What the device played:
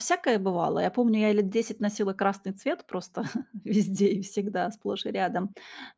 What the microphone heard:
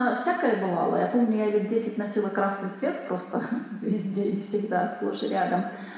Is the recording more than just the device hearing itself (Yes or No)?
No